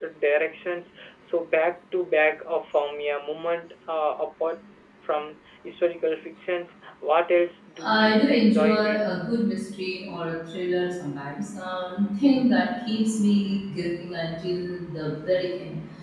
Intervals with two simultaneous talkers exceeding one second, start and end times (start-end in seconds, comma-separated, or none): 7.8-9.2